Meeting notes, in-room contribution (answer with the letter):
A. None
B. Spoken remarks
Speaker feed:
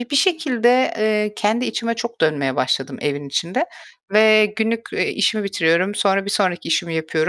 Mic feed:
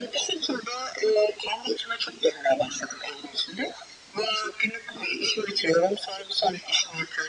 A